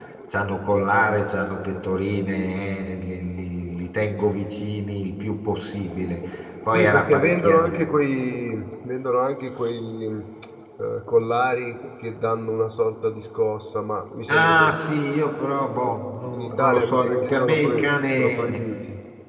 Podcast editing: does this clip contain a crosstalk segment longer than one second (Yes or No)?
Yes